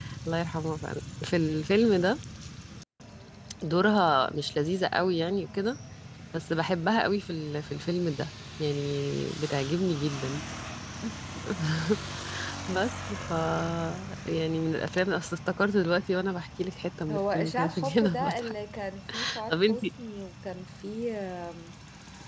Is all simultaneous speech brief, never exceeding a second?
No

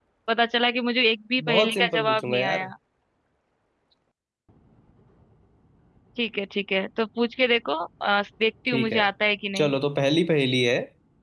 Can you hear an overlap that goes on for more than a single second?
Yes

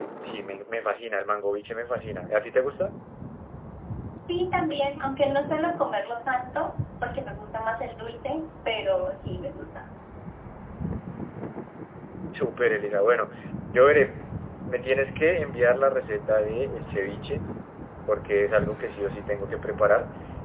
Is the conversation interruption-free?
Yes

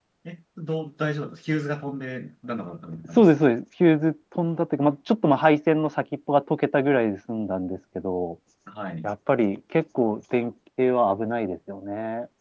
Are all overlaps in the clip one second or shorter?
Yes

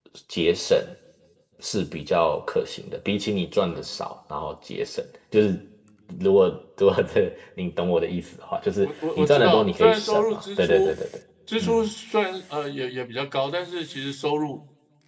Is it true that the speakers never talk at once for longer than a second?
No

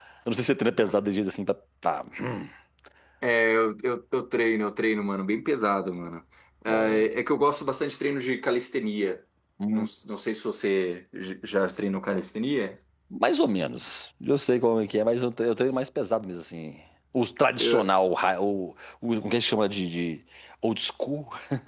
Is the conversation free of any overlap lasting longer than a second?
Yes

